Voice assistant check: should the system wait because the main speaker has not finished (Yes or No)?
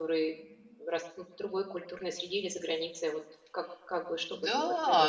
No